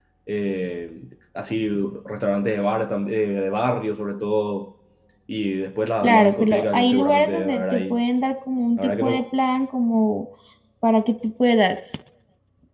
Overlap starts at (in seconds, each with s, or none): 6.0 s